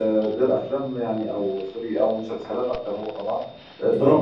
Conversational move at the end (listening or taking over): listening